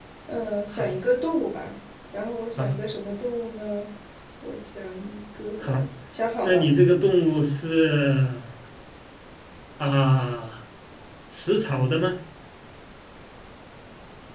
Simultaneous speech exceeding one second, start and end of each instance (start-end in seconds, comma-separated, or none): none